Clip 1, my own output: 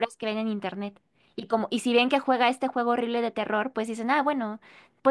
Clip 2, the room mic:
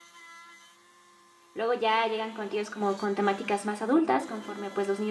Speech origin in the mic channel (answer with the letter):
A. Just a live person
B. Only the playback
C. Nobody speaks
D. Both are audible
A